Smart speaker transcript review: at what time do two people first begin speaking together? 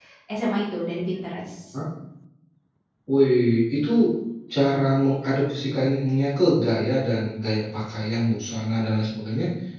none

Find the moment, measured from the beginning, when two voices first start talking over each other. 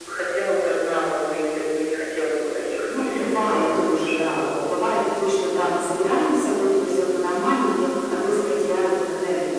3 s

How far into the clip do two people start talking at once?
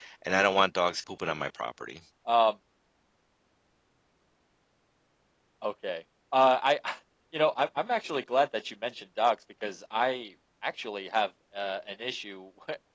none

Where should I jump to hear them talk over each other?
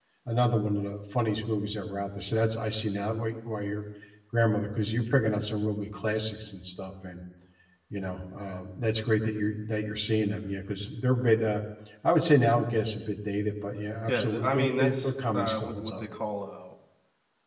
14 s

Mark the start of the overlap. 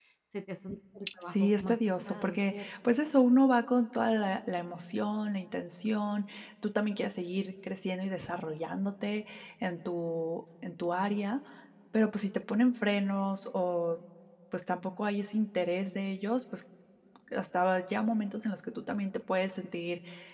1 s

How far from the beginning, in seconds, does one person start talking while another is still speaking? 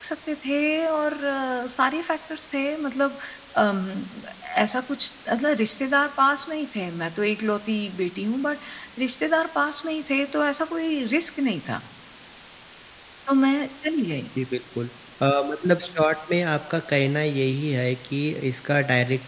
none

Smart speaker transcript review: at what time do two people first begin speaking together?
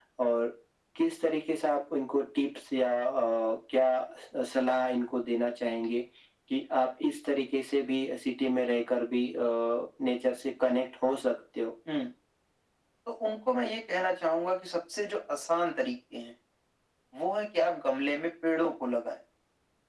none

